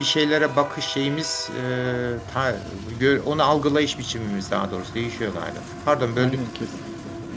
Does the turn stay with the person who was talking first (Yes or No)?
No